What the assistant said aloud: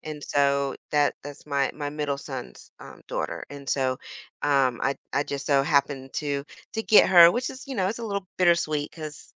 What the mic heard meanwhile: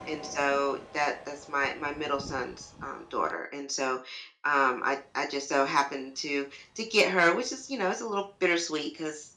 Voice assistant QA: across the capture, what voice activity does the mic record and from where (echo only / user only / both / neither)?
echo only